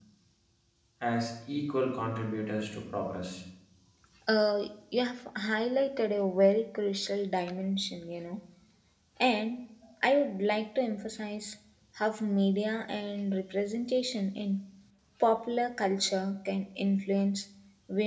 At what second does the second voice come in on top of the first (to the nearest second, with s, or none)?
none